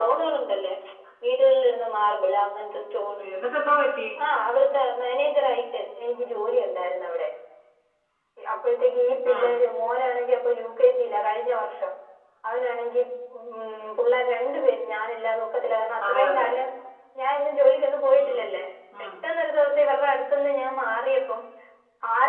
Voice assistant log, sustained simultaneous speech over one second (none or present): none